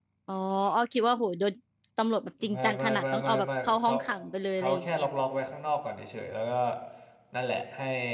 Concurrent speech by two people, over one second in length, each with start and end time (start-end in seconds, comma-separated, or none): 2.5-3.9